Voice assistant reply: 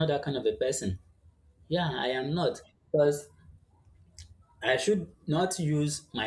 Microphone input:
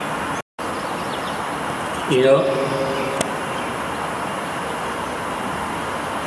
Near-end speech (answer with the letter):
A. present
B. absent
A